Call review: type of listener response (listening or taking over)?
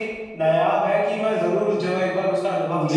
taking over